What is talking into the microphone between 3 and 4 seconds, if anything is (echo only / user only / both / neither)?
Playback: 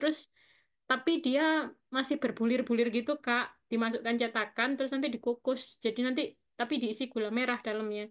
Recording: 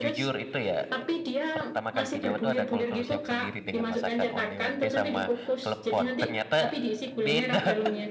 both